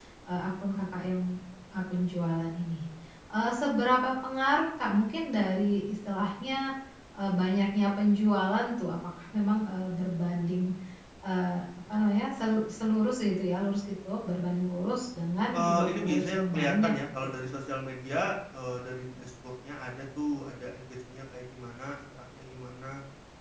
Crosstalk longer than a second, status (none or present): present